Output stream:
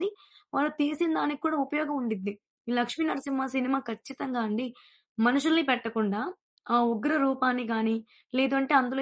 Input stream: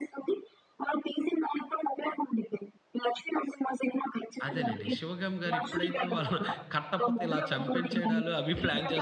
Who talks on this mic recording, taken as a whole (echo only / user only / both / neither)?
both